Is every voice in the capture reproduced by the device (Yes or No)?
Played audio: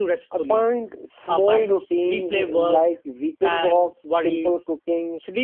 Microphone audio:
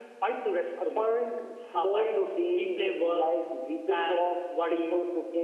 Yes